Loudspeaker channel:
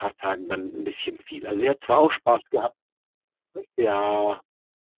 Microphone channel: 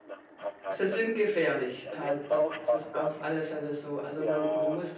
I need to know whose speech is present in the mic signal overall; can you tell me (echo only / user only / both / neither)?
both